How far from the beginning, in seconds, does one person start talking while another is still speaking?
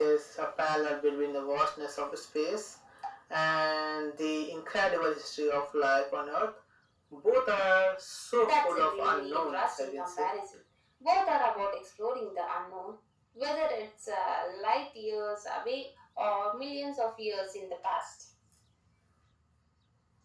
8.4 s

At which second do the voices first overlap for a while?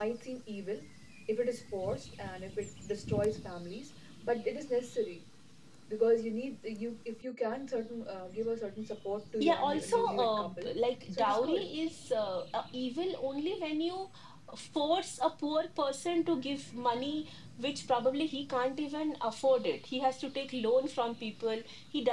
9.4 s

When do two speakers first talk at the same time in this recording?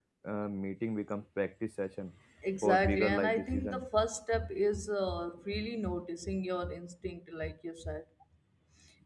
2.6 s

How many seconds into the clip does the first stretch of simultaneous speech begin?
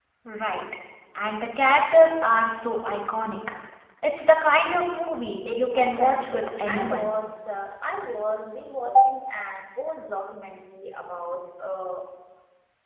5.5 s

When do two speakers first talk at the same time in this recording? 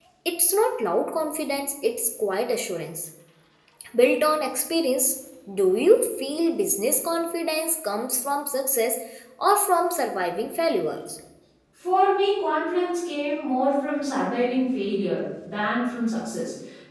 none

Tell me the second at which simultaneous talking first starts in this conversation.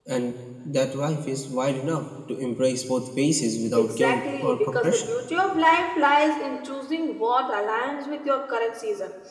3.7 s

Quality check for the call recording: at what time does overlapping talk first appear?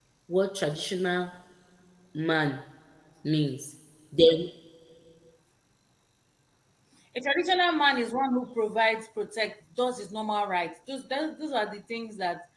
none

